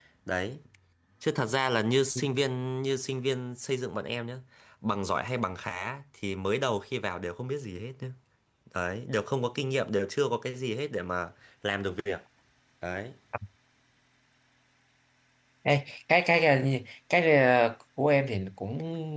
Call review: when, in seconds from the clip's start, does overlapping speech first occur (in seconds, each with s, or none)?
none